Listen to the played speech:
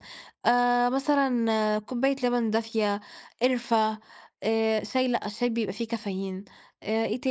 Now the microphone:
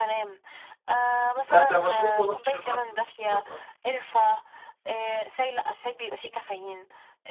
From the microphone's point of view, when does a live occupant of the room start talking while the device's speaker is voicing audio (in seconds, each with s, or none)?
1.5 s